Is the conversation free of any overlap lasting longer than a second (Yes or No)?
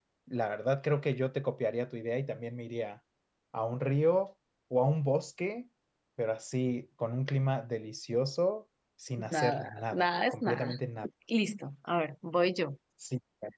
No